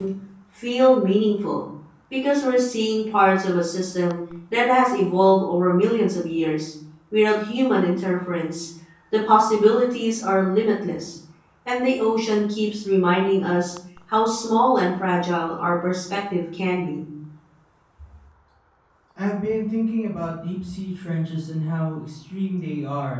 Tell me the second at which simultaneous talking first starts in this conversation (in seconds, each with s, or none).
none